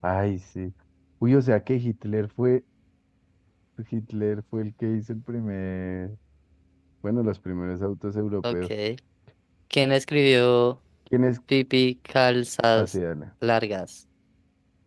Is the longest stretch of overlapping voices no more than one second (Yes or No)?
Yes